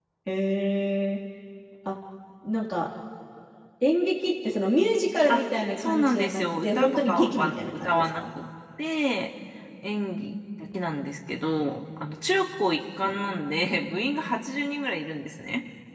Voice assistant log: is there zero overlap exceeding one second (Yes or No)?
No